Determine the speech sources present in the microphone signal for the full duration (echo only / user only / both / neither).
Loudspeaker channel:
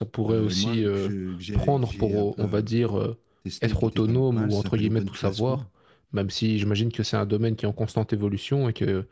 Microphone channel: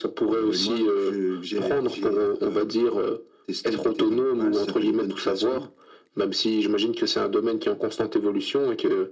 echo only